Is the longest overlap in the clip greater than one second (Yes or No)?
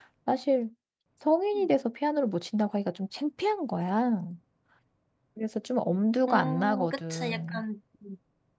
Yes